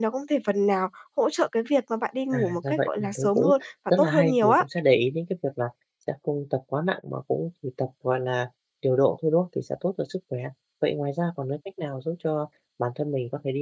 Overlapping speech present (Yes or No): Yes